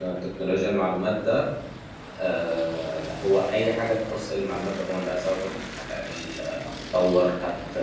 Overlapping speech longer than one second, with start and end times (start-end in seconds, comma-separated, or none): none